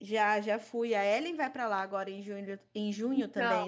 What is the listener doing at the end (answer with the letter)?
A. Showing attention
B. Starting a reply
B